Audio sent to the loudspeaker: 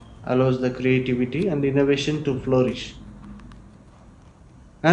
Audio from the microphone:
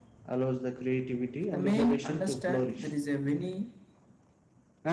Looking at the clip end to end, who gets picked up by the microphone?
both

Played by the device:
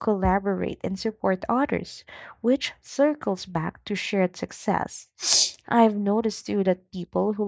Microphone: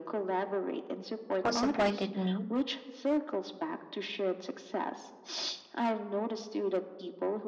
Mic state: both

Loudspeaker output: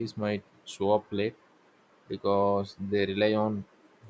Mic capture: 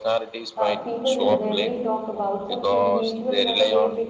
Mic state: both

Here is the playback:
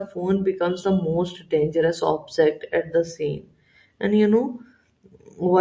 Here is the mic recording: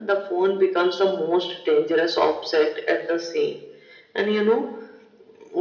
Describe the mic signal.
echo only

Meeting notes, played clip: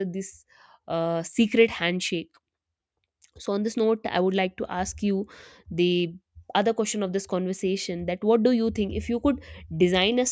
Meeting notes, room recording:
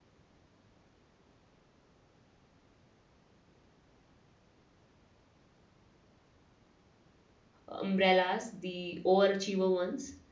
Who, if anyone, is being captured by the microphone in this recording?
user only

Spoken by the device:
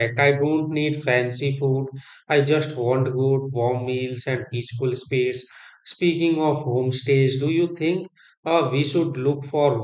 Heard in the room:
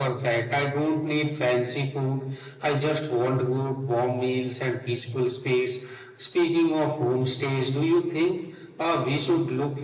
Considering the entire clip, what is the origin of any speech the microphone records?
echo only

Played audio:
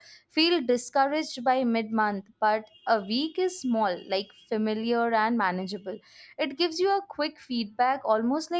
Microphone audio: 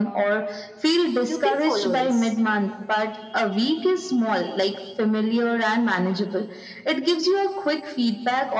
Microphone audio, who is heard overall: both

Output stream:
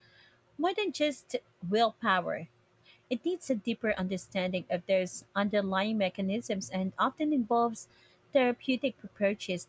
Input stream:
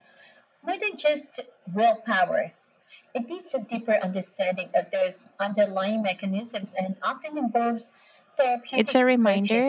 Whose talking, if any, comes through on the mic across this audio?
both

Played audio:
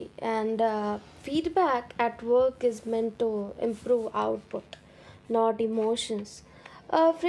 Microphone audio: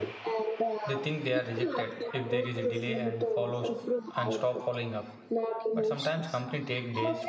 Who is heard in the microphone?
both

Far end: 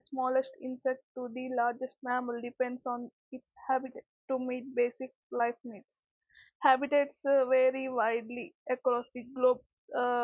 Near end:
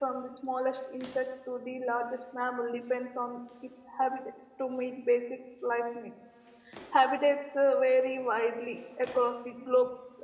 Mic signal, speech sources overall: echo only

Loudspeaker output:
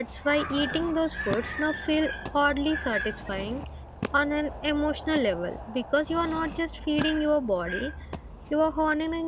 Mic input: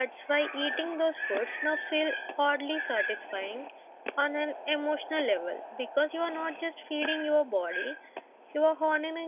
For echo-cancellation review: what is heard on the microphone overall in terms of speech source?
echo only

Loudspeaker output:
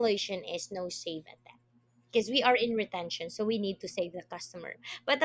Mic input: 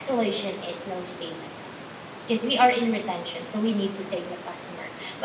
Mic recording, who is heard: echo only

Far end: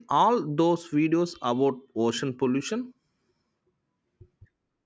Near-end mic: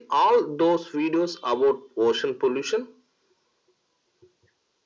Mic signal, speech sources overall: echo only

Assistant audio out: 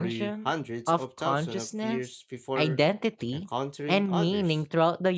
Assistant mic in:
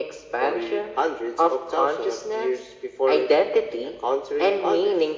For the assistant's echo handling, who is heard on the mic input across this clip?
echo only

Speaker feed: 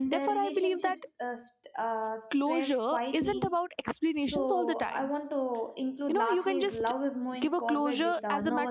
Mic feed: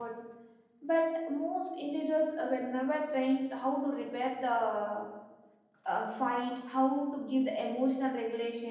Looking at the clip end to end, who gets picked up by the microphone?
user only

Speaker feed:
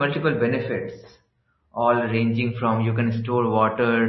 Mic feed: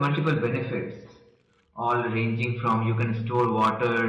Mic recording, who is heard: echo only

